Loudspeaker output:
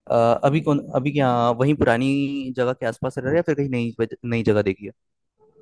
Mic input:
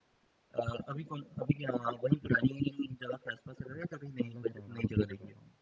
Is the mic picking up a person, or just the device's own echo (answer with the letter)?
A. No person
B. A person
B